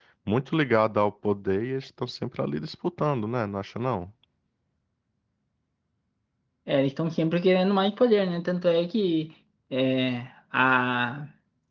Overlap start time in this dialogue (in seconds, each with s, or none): none